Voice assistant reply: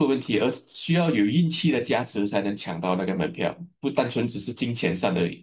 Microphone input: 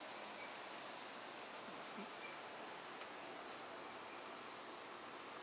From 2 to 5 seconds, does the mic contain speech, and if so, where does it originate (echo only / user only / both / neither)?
neither